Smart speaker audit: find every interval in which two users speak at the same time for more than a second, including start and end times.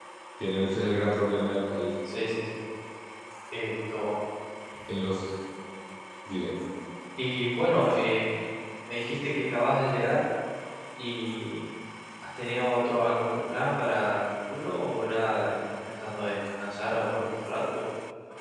none

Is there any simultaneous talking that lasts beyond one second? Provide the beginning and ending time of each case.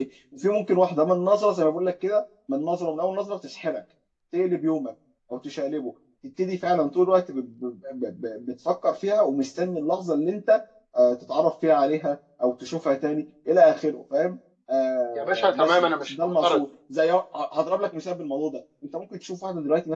15.2-16.6

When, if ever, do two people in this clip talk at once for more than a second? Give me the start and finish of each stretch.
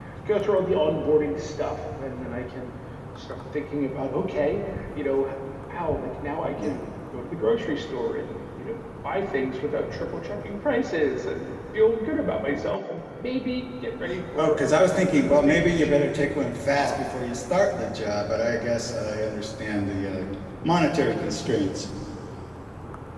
14.3-16.1

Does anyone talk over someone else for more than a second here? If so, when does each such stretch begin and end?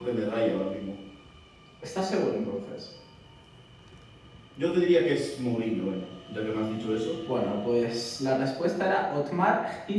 none

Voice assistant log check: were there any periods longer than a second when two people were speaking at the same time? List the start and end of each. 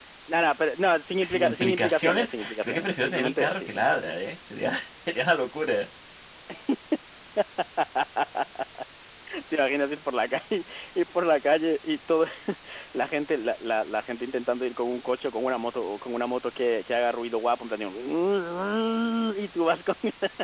1.2-4.0

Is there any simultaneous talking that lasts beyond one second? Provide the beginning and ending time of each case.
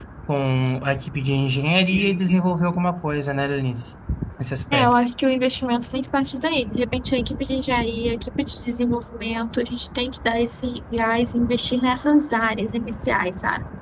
none

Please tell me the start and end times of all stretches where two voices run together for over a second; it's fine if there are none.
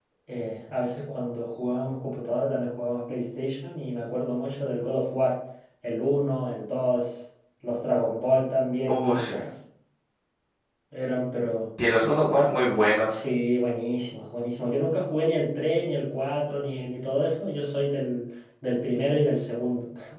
none

